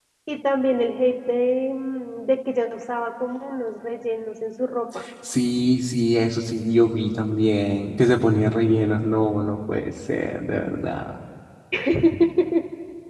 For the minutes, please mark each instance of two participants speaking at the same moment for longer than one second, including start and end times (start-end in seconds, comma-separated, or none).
none